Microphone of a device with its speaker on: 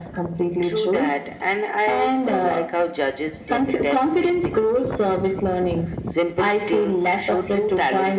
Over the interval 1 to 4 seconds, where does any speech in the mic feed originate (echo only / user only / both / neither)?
echo only